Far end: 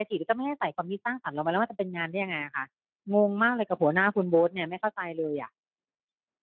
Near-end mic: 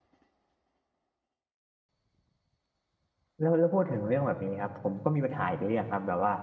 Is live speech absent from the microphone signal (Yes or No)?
No